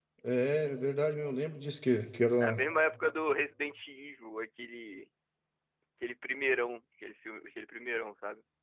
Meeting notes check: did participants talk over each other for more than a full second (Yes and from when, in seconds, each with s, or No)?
No